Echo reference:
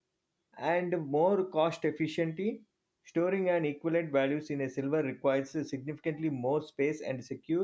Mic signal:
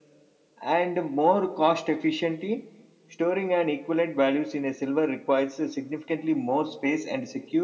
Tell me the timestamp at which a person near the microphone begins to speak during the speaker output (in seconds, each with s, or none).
none